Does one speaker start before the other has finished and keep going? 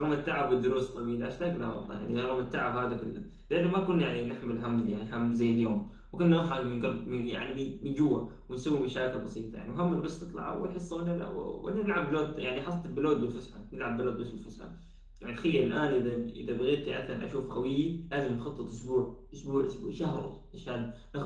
No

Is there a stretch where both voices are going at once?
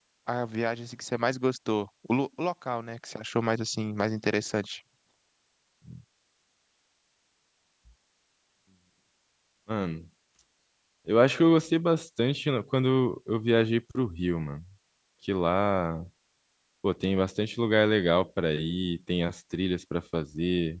No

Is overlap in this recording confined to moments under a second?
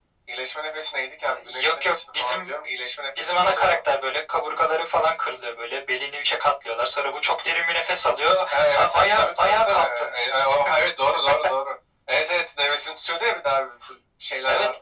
No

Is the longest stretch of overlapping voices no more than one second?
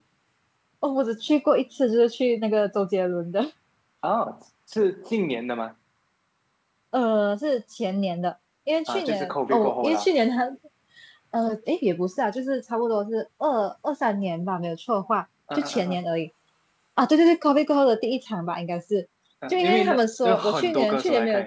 No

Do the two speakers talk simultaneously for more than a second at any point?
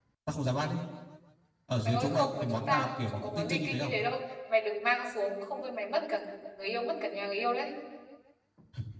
Yes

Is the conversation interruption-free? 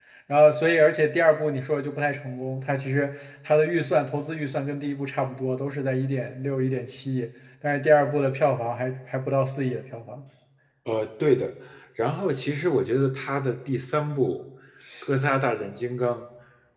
Yes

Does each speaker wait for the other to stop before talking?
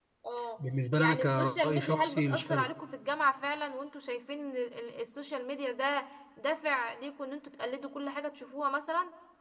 No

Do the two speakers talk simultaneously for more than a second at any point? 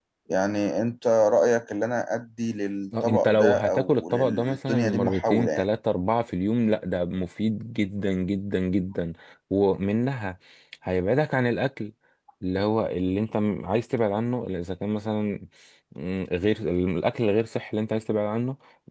Yes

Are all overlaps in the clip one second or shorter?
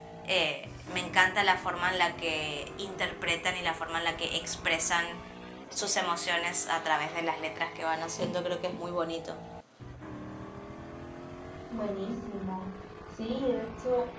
Yes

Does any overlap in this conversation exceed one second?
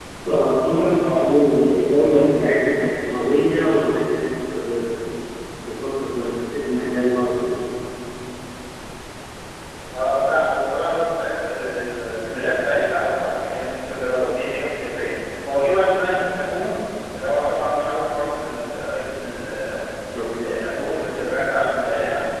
No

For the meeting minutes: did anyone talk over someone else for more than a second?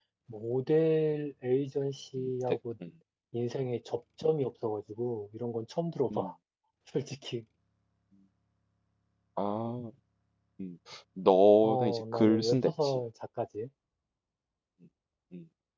Yes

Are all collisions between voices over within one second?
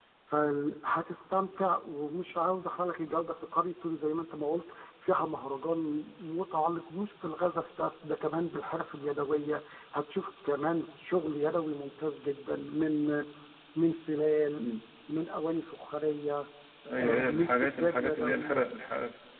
No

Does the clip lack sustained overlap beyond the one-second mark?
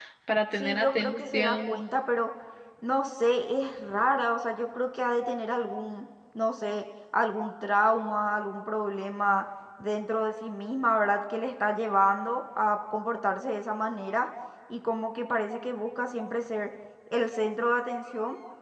No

